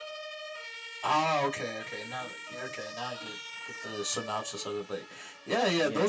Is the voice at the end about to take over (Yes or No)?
No